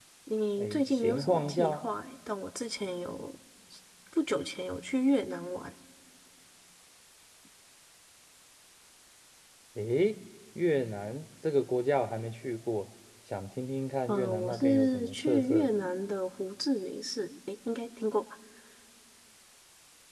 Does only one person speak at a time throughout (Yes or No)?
No